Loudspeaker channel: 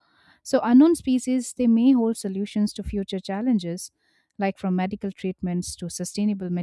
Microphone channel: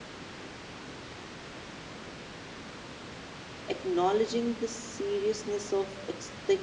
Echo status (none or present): none